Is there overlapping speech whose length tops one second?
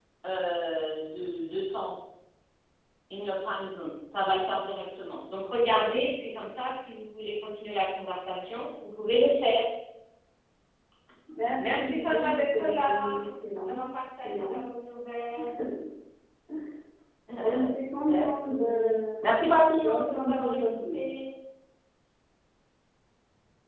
Yes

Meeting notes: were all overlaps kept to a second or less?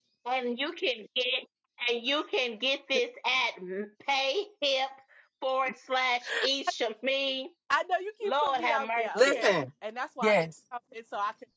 No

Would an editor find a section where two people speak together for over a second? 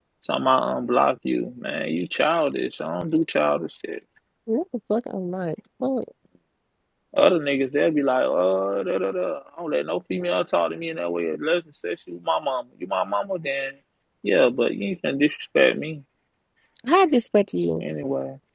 No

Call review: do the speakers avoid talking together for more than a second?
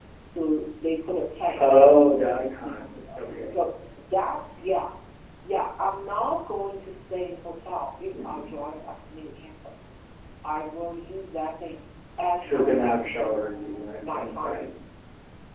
No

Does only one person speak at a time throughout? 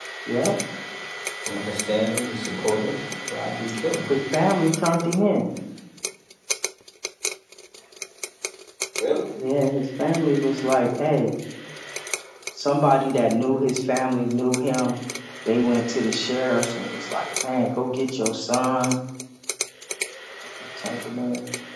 Yes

